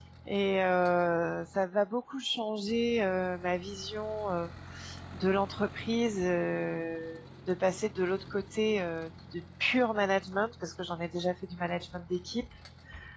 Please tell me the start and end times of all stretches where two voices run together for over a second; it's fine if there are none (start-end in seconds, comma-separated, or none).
none